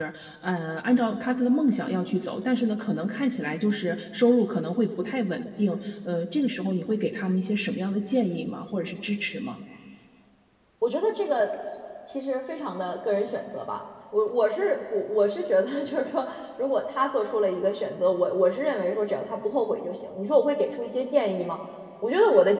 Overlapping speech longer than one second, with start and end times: none

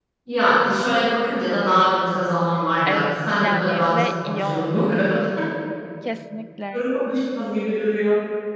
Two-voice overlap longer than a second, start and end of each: 2.9-5.0

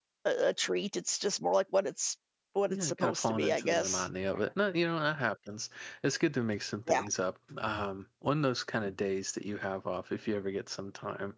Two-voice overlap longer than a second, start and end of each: 2.7-4.0

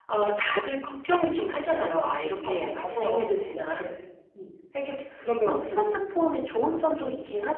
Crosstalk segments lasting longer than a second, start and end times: 2.4-3.9

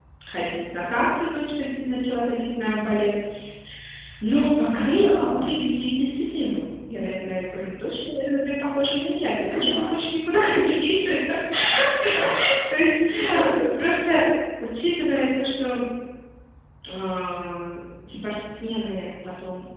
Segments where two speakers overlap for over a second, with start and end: none

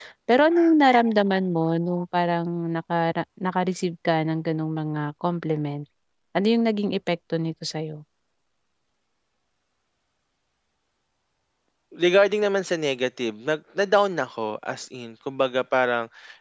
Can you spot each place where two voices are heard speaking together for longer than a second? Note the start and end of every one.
none

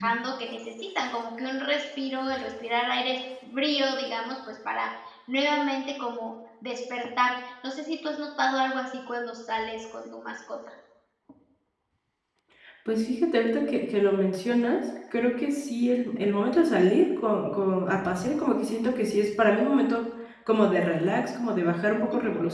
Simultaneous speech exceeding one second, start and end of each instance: none

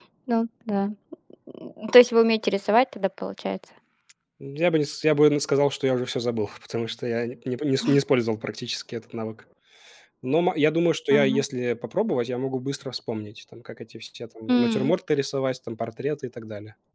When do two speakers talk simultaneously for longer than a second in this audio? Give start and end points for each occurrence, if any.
none

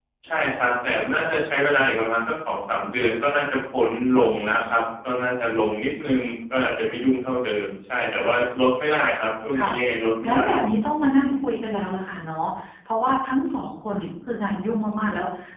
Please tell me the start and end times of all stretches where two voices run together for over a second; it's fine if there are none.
none

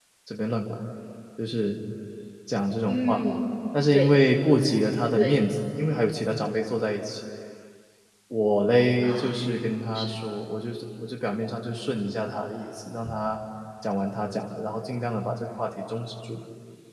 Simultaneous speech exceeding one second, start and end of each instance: none

